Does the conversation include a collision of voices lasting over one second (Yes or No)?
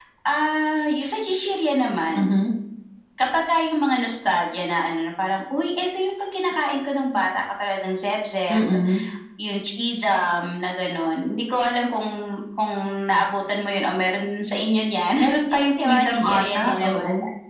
Yes